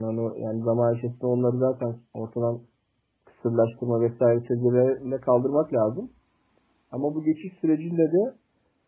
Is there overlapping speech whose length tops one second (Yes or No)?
No